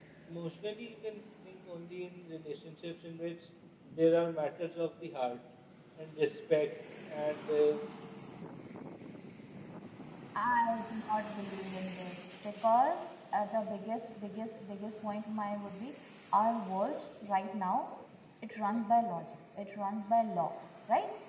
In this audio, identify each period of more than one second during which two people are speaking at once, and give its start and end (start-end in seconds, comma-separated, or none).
none